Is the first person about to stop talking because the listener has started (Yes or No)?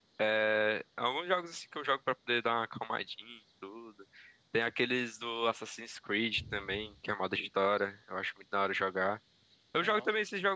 No